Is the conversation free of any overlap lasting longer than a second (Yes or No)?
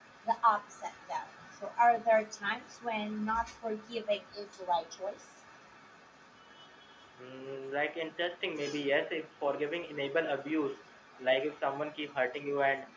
Yes